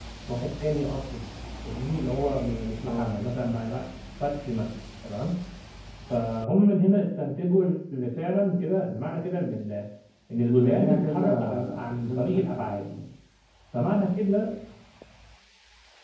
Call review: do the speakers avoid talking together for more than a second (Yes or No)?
No